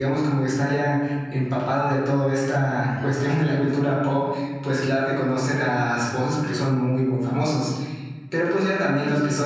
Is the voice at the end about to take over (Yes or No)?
No